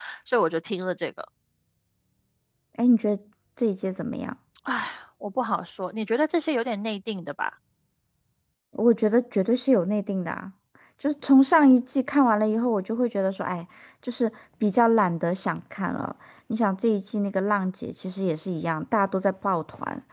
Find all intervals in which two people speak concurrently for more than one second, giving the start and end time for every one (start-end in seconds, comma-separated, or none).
none